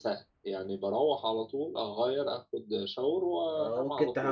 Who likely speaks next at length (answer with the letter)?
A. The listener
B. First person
A